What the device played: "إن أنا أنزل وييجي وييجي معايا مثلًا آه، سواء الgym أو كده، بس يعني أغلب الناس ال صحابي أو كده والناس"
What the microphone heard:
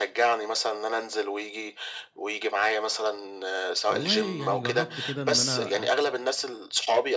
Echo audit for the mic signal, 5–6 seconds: both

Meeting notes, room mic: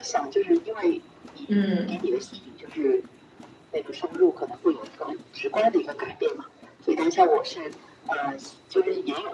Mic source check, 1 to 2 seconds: both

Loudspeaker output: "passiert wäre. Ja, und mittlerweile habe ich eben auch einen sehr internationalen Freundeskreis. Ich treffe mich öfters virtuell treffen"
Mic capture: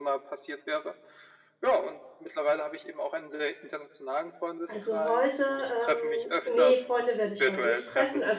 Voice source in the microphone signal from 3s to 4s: echo only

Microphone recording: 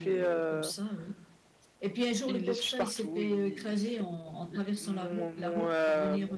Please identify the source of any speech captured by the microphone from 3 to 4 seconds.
both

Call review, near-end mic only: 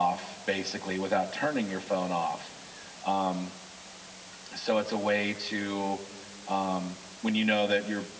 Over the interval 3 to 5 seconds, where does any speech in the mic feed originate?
echo only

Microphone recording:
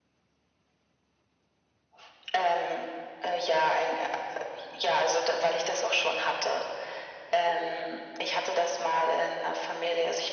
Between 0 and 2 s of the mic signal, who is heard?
neither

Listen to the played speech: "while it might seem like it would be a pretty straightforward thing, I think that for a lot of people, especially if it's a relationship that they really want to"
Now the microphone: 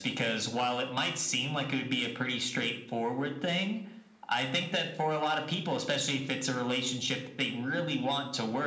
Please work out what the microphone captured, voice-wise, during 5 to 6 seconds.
echo only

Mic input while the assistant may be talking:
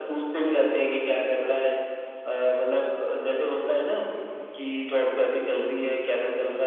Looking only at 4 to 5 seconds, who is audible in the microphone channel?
echo only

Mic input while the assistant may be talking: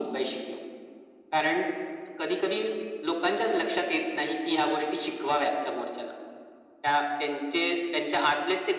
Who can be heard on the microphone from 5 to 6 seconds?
echo only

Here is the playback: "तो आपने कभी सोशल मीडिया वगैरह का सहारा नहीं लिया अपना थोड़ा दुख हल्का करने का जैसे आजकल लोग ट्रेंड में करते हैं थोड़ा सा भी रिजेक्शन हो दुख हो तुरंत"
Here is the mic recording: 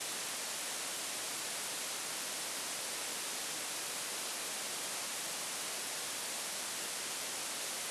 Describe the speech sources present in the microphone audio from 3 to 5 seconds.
neither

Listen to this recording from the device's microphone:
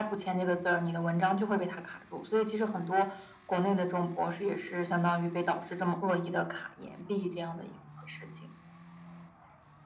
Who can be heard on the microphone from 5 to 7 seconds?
echo only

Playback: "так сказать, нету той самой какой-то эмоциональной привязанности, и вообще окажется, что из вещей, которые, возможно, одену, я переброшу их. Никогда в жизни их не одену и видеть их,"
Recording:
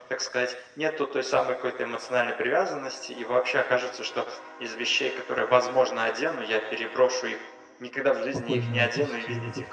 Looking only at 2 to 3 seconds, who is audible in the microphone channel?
echo only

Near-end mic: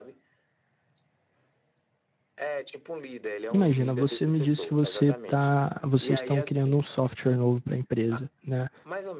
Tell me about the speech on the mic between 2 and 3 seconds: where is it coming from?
echo only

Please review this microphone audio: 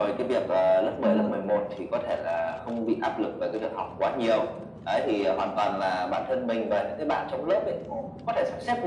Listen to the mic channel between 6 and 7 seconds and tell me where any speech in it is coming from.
echo only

